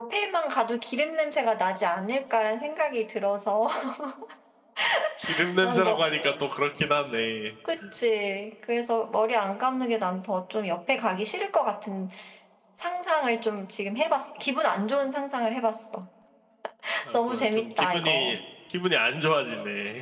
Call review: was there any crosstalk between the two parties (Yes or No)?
Yes